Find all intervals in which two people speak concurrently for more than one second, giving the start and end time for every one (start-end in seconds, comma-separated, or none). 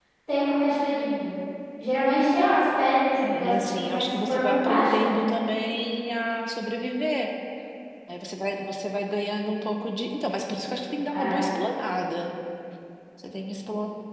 3.2-5.2